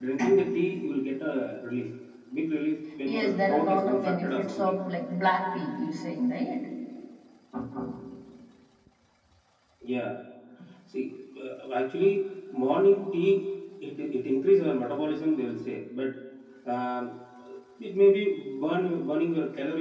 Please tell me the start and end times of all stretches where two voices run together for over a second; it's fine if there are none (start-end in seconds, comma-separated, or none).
3.1-4.8